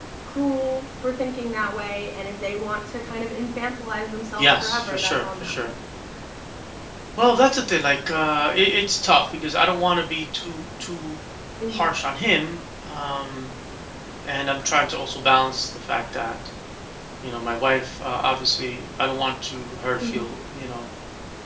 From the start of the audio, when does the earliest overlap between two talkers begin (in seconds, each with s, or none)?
4.4 s